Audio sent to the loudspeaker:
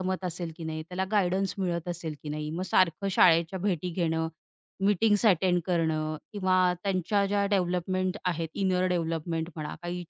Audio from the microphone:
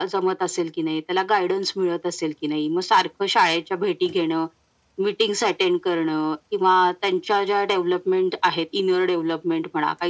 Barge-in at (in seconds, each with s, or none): none